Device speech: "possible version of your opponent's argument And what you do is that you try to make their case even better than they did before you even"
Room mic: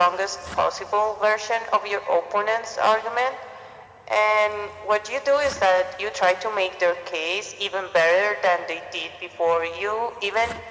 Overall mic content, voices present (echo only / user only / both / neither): echo only